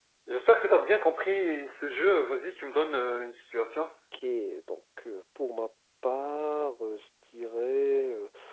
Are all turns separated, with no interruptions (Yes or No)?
Yes